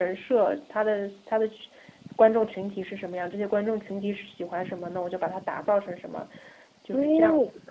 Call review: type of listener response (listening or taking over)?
taking over